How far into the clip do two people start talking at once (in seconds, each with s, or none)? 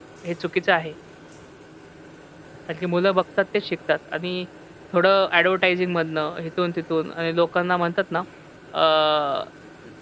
none